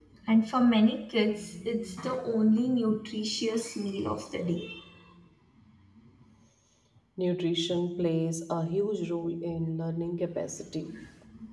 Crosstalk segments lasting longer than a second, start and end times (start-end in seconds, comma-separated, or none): none